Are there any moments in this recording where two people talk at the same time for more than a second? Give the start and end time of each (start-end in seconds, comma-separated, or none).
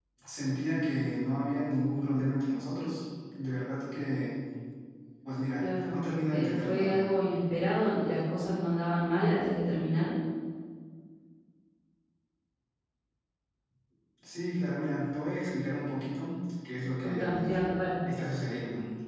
5.6-7.1